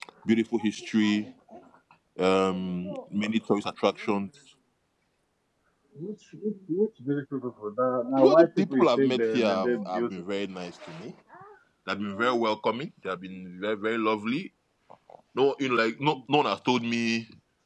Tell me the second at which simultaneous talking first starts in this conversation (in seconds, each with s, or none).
8.2 s